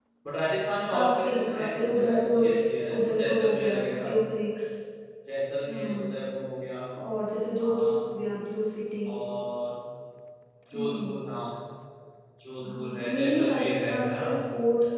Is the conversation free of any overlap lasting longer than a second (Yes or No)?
No